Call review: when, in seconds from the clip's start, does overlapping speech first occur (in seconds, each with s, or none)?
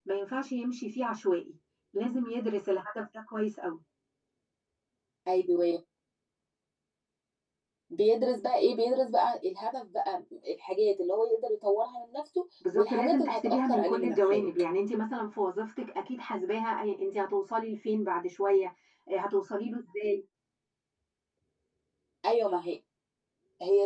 12.6 s